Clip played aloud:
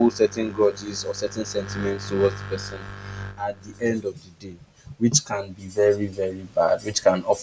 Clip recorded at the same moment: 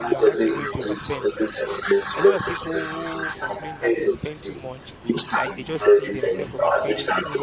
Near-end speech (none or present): present